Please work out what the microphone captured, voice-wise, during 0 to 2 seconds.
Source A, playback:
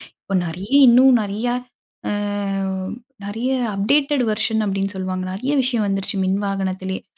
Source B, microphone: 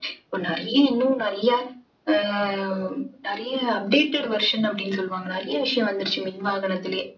echo only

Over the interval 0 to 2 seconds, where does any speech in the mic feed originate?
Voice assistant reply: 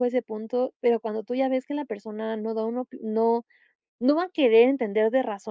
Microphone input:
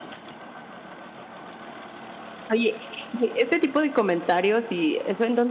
neither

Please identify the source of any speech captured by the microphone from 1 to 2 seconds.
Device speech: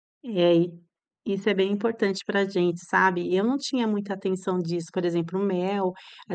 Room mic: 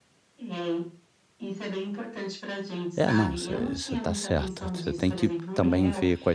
echo only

